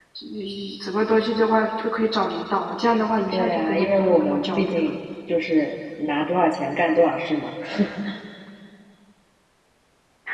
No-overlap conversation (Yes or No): No